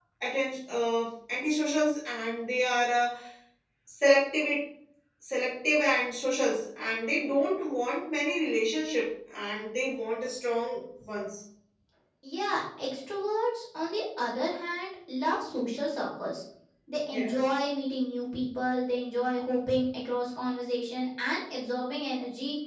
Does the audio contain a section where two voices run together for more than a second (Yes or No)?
No